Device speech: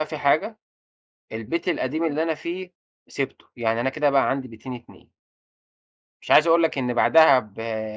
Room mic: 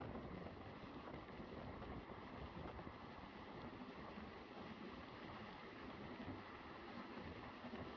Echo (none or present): none